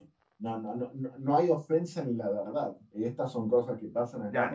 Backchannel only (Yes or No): No